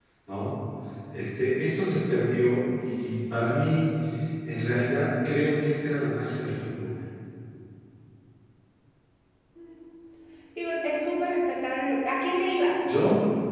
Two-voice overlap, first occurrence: none

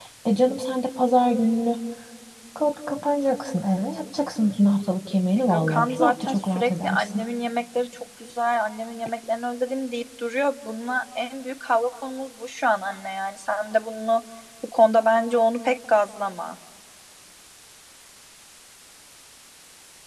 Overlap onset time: 5.4 s

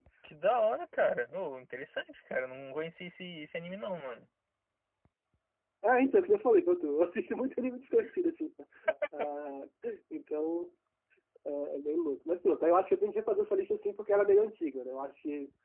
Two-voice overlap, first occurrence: none

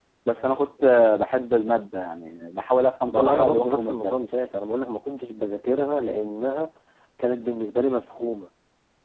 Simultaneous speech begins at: 3.1 s

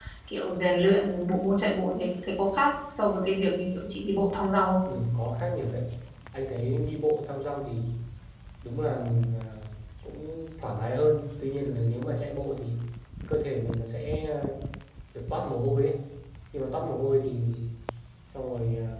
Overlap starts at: none

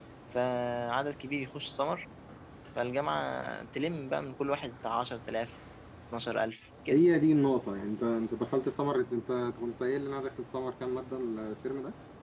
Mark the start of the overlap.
none

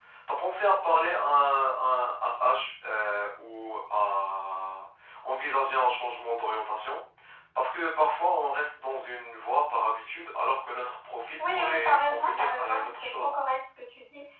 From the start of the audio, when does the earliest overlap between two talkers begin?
11.4 s

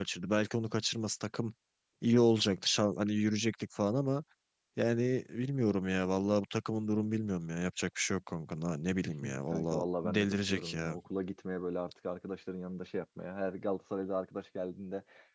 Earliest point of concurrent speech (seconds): 9.2 s

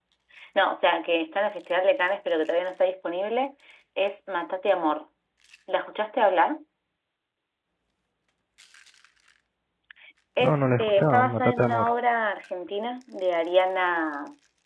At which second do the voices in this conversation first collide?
10.4 s

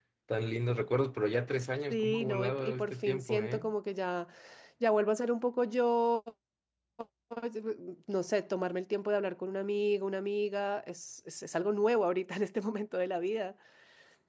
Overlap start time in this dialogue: 1.9 s

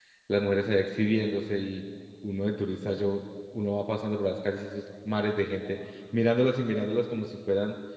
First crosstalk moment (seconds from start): none

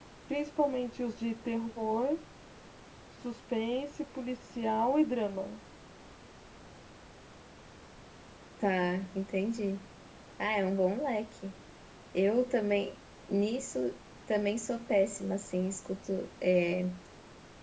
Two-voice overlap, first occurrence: none

